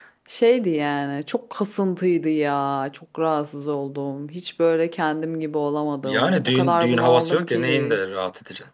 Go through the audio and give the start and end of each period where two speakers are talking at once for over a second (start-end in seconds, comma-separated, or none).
6.0-8.0